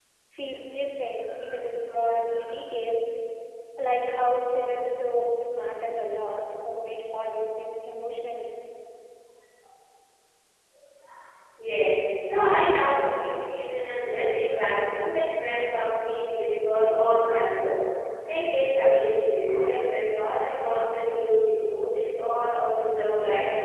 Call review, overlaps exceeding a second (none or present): none